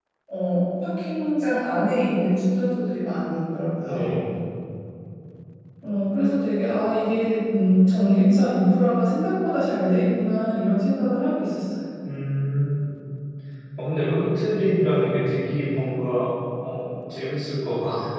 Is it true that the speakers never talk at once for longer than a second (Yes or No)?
Yes